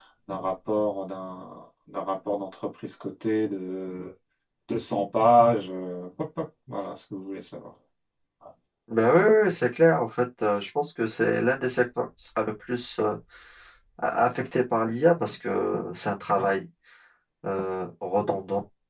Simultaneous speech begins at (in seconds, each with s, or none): none